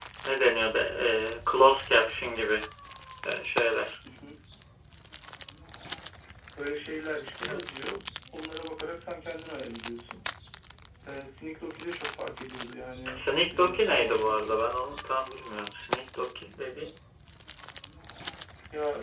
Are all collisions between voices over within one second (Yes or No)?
No